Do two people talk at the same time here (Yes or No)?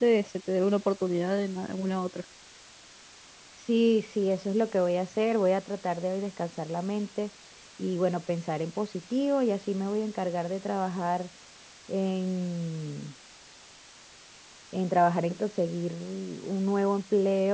No